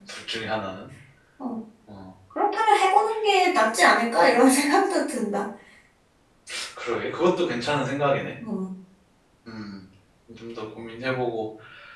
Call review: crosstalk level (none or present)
none